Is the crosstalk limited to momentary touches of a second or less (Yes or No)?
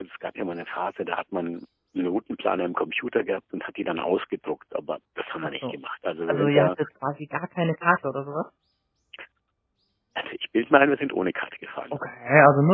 Yes